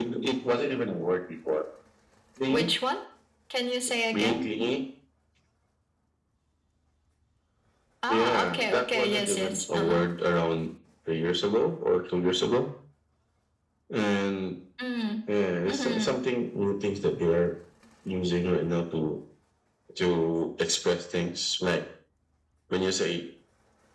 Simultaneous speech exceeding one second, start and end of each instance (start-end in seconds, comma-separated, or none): 8.1-10.0